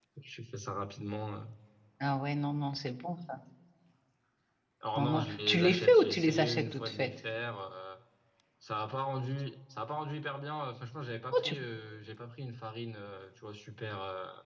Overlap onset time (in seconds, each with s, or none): 5.0 s